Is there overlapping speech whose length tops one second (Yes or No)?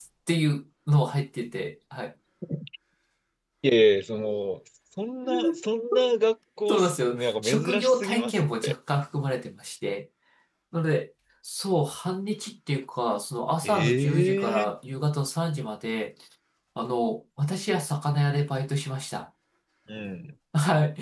Yes